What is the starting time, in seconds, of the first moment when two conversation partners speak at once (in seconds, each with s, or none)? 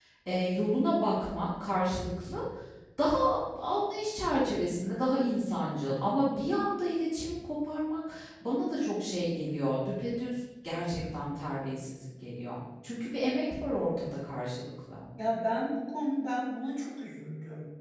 none